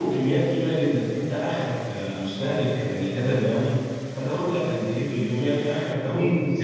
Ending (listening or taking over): listening